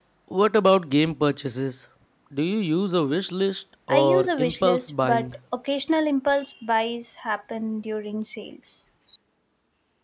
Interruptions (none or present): present